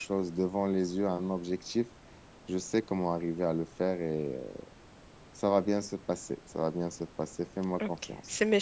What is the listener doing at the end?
taking over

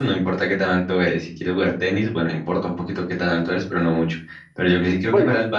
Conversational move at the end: listening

